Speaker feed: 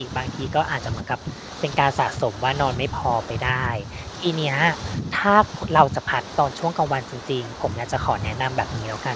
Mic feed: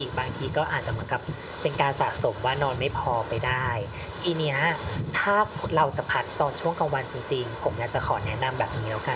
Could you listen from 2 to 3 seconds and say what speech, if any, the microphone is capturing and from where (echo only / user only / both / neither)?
echo only